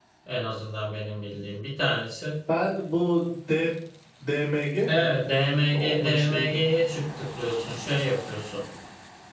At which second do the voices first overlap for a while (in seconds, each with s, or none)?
4.9 s